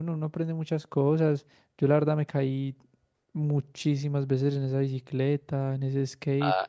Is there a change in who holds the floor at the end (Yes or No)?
Yes